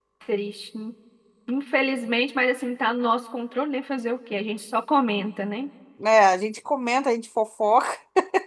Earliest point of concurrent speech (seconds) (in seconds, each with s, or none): none